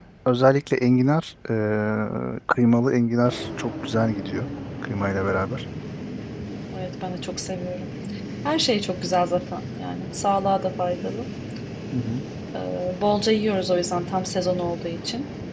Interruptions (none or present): none